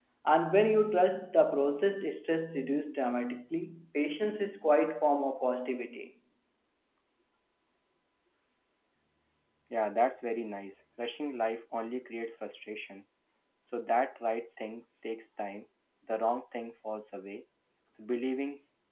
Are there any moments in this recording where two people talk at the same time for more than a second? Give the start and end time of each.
none

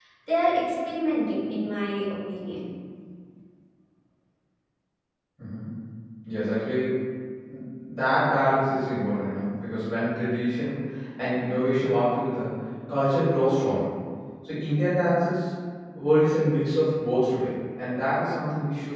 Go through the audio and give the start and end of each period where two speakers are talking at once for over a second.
none

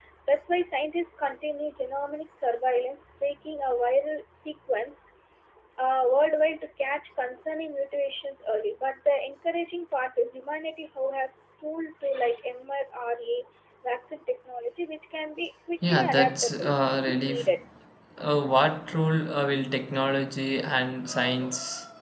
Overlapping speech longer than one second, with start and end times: 15.9-17.5

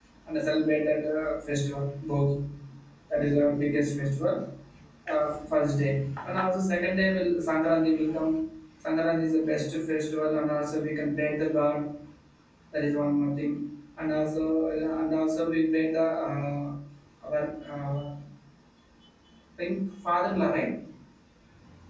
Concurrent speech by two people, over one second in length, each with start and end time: none

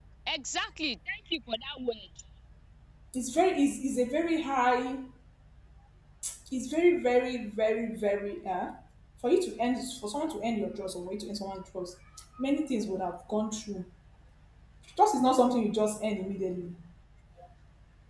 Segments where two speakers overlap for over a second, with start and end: none

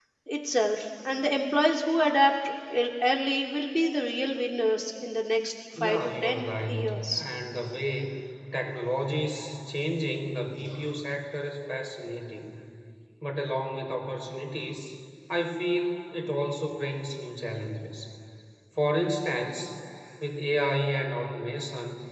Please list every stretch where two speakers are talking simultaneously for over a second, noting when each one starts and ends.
5.8-7.2

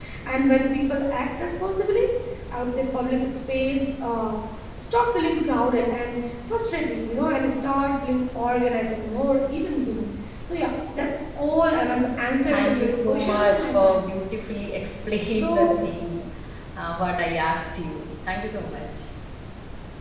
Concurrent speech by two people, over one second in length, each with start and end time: 12.5-14.0

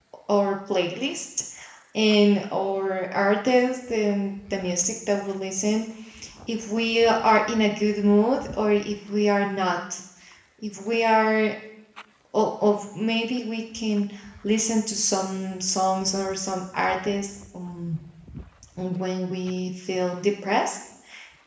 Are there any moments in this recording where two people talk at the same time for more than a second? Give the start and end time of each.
none

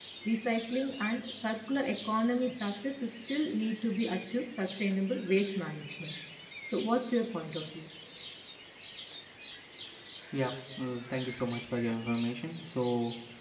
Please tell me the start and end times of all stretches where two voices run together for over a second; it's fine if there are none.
none

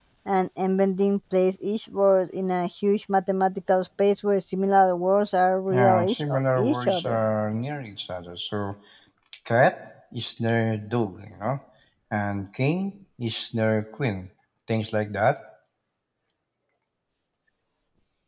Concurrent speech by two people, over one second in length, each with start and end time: 5.7-7.2

